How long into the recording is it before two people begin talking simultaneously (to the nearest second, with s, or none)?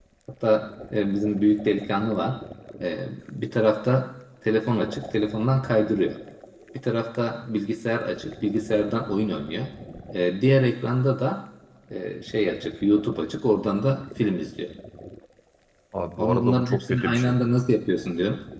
16 s